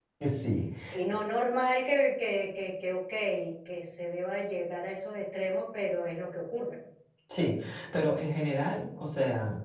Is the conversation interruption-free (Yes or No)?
Yes